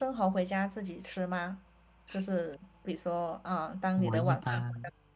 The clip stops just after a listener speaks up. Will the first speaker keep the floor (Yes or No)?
No